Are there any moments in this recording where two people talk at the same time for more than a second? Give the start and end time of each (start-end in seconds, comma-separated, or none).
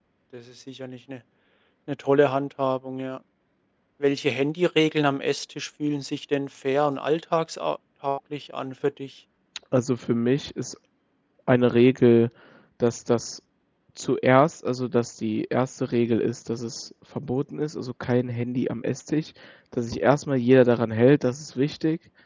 none